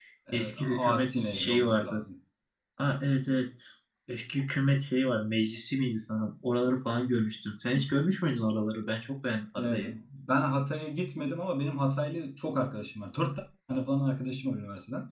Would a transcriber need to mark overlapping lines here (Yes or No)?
Yes